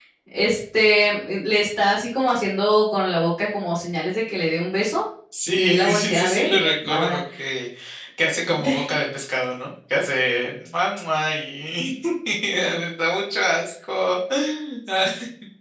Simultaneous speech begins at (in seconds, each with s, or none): 5.5 s